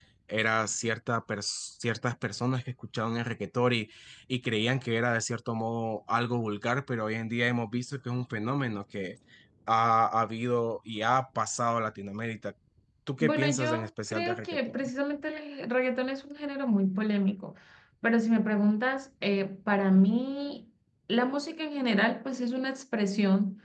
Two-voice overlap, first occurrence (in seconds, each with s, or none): 13.2 s